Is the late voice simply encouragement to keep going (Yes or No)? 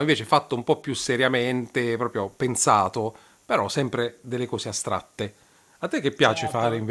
No